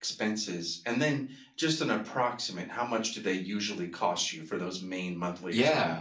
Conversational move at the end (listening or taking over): taking over